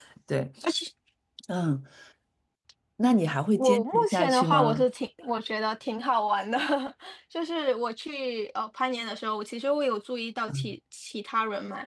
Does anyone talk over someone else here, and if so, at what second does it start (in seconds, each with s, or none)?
3.6 s